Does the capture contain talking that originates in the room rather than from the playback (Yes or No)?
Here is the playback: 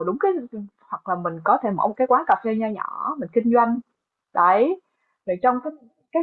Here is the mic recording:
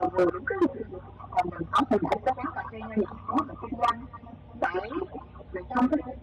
No